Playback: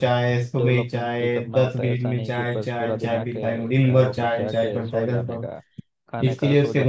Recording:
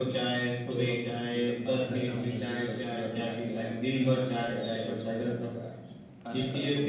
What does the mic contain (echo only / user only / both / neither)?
both